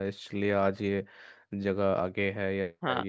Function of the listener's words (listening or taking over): taking over